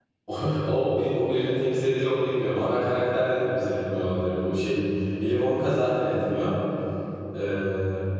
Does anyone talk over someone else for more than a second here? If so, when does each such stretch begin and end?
none

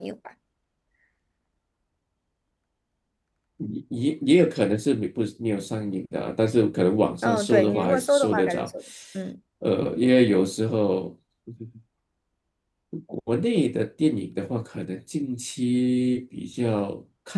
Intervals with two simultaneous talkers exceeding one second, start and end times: 7.2-8.7

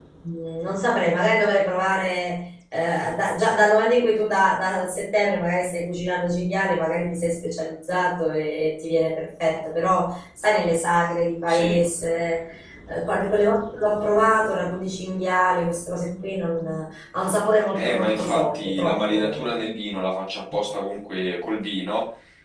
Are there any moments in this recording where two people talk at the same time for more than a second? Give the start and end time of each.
17.7-19.6

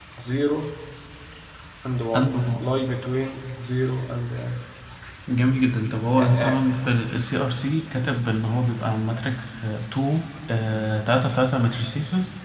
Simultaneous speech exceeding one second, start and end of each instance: none

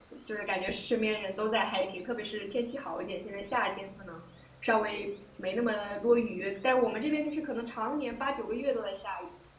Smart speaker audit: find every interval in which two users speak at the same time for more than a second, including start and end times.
none

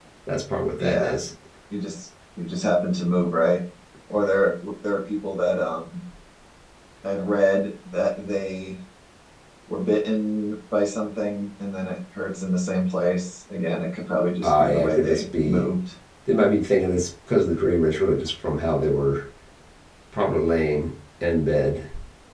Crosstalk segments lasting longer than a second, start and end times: 14.4-15.6

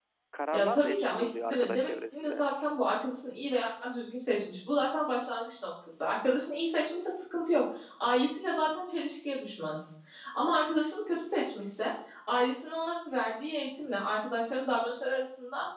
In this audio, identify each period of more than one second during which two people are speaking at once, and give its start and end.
0.5-2.4

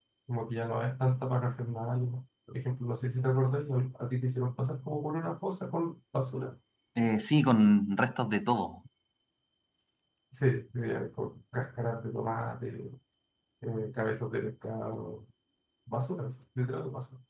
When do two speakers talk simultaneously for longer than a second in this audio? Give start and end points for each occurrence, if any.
none

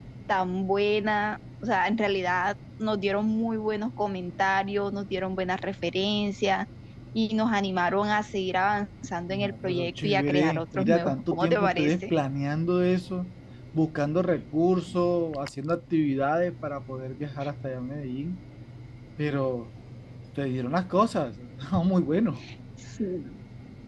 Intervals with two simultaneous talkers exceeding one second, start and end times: 9.3-12.1

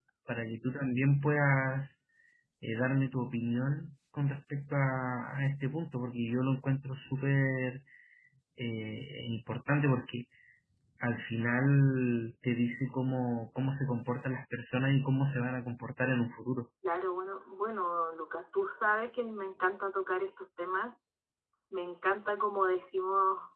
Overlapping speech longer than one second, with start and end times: none

